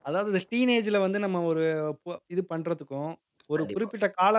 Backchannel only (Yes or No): Yes